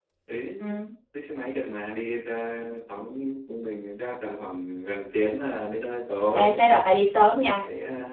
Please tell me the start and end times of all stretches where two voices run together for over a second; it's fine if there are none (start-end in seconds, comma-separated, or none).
none